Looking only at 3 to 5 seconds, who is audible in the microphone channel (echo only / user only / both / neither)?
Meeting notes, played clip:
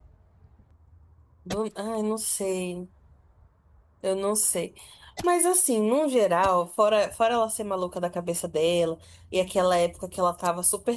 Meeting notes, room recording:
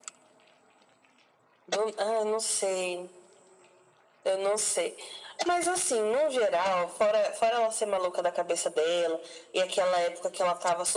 echo only